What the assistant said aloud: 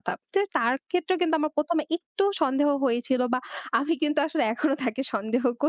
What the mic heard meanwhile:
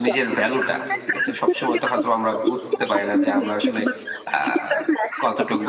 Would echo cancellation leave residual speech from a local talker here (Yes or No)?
Yes